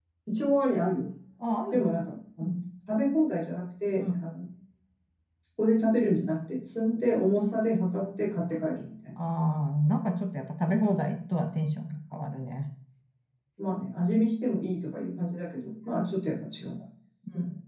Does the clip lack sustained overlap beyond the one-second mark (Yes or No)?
Yes